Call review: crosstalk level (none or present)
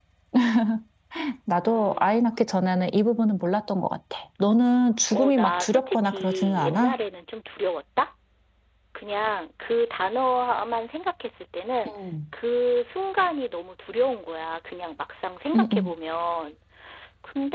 present